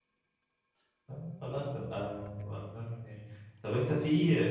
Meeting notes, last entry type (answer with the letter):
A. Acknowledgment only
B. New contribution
A